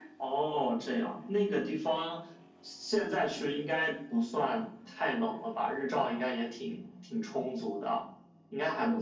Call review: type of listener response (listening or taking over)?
taking over